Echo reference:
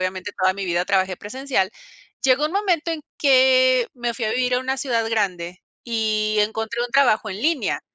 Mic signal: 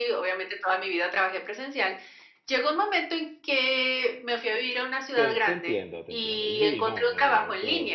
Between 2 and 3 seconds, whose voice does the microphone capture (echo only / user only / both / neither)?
echo only